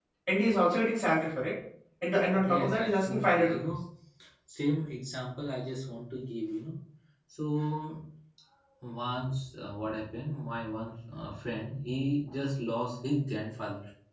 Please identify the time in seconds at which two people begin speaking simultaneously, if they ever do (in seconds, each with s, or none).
2.4 s